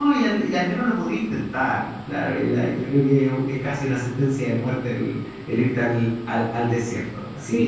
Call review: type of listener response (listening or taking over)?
taking over